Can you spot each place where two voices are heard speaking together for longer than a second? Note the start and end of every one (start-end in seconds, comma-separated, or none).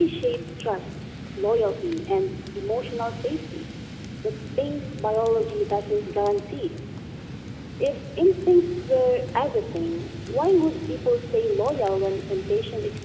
none